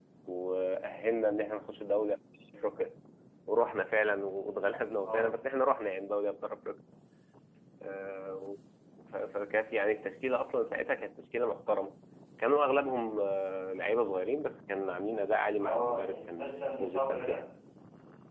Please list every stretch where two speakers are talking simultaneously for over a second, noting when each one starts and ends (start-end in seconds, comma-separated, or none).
15.6-17.4